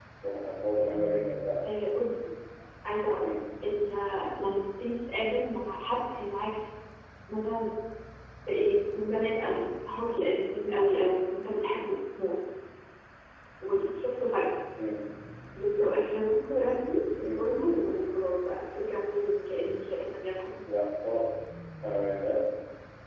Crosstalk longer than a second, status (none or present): none